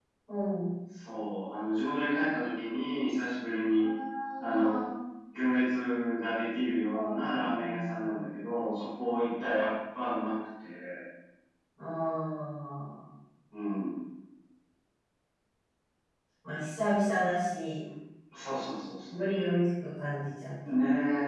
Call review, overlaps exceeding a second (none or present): present